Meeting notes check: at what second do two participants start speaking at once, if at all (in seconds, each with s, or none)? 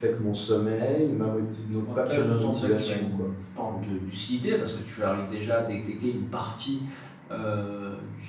1.8 s